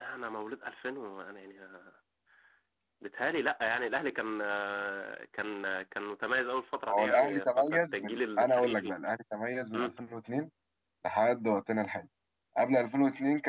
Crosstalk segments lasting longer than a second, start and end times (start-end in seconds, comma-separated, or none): 6.9-8.9